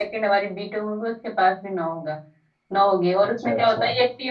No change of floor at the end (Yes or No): Yes